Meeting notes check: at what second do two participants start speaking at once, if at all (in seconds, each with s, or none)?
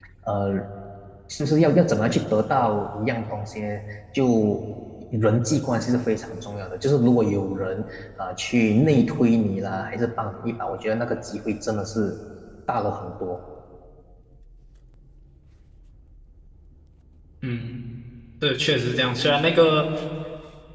none